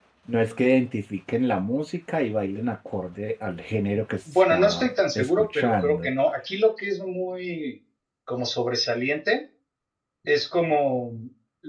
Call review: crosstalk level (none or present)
present